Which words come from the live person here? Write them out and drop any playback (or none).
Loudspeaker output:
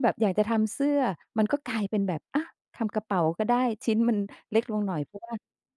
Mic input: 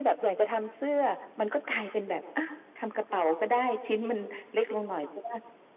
none